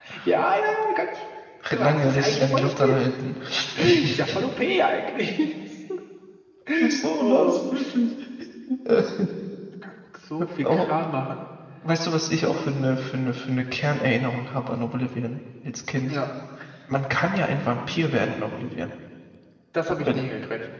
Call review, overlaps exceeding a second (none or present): present